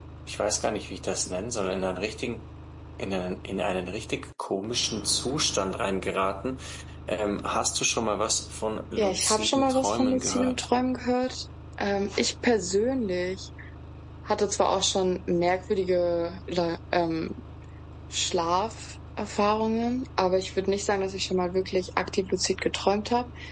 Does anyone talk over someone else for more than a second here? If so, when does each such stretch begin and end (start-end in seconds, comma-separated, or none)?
9.0-10.7